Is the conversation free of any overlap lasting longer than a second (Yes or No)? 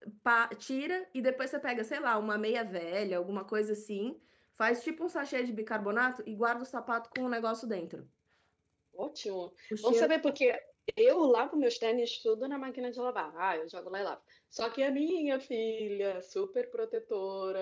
Yes